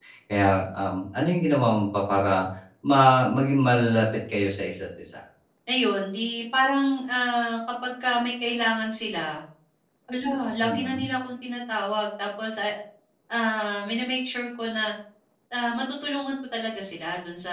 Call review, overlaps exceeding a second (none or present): none